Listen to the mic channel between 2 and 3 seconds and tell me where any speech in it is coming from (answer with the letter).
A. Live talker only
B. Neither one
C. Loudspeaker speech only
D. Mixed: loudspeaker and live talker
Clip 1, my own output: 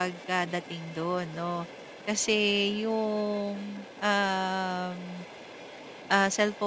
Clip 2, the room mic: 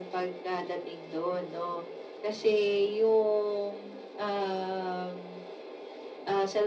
C